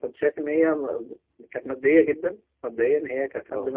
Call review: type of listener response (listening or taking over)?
listening